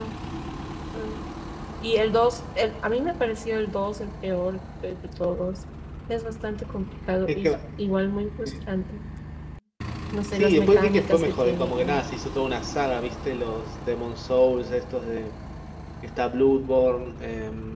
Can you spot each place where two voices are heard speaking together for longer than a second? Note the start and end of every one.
10.3-12.0

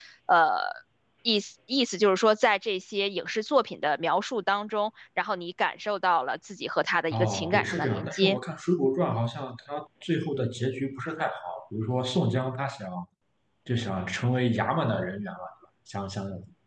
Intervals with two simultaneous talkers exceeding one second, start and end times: 7.1-8.4

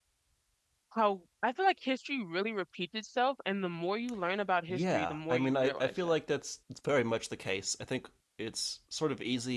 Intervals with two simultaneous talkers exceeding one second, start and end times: 4.7-6.1

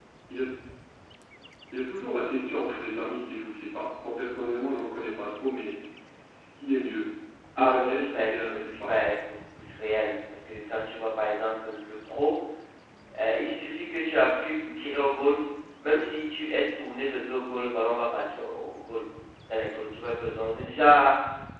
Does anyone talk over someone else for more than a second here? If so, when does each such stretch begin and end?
7.6-8.9

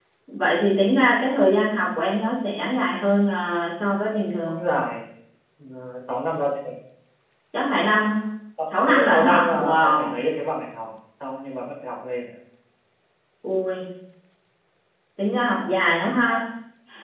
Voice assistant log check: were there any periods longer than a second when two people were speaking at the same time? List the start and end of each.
8.9-10.2

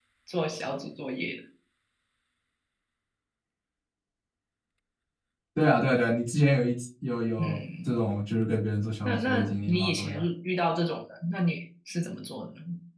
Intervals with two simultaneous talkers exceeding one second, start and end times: 9.0-10.3

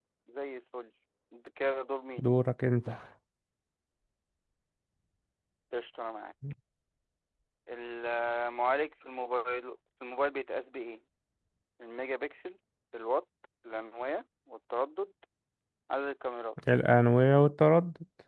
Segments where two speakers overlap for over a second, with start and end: none

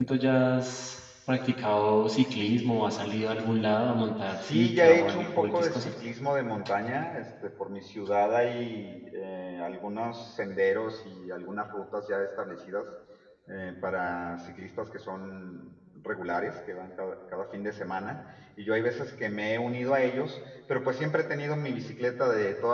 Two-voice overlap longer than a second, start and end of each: 4.4-5.9

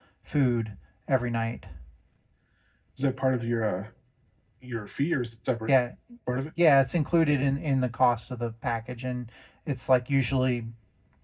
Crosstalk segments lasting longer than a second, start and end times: none

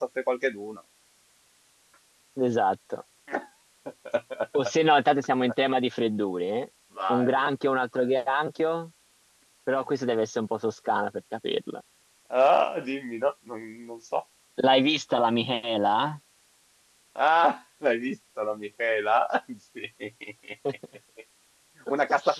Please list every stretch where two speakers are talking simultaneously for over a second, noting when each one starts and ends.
none

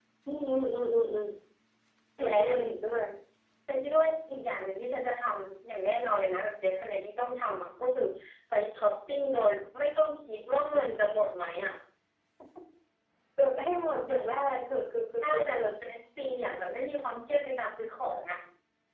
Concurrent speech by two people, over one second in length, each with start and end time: none

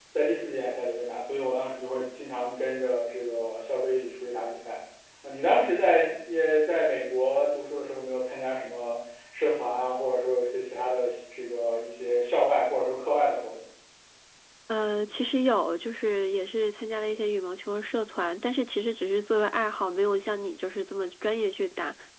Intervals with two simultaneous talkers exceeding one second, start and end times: none

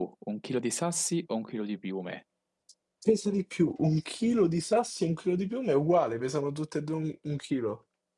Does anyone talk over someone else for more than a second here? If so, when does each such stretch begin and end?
none

